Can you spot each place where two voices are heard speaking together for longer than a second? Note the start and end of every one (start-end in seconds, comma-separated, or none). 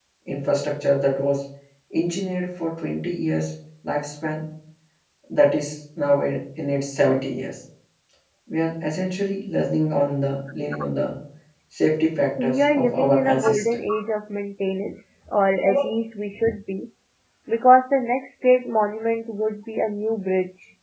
12.4-13.8